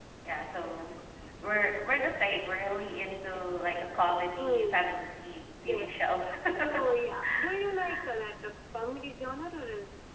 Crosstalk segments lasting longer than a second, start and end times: none

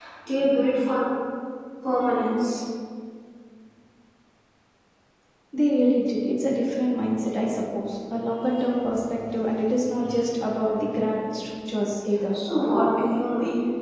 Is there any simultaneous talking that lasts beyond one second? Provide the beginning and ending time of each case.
none

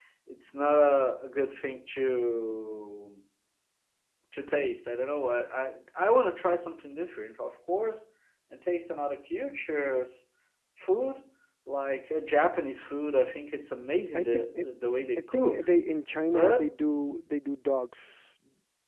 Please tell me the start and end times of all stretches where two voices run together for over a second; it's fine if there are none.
none

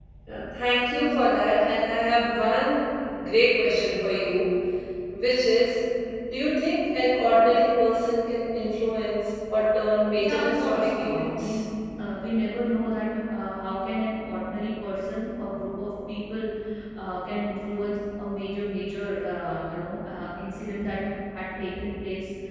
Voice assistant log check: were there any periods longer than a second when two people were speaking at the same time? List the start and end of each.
10.2-11.6

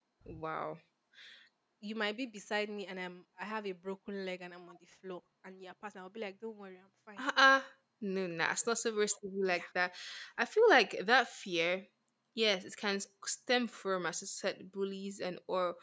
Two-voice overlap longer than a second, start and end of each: none

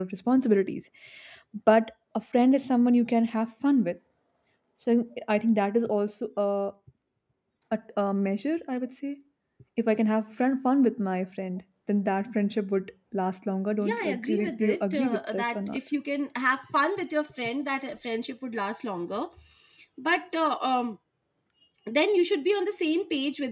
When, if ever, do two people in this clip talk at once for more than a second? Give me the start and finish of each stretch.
13.8-15.8

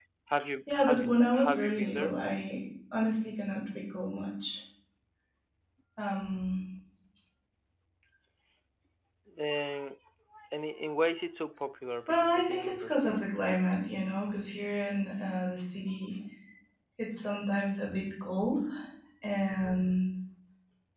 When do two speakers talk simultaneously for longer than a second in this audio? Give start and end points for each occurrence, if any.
0.7-2.1, 12.1-13.3

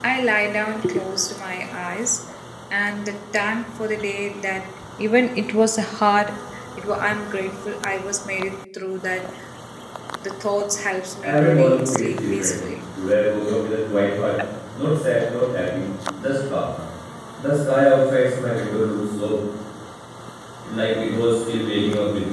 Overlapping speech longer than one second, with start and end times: 11.2-12.6

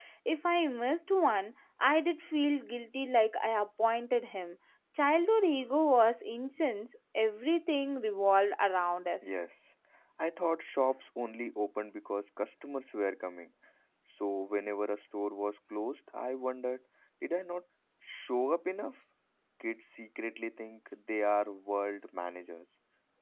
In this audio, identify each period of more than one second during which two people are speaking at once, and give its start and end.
none

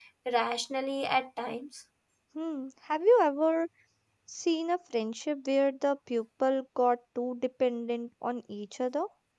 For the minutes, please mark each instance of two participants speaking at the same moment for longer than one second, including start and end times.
none

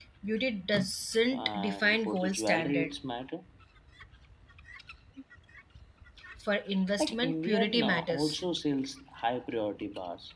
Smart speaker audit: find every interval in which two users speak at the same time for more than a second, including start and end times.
1.3-2.9, 7.0-8.4

